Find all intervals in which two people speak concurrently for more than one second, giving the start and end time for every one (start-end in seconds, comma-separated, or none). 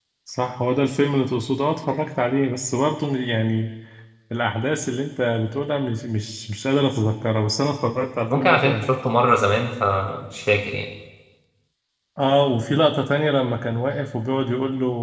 none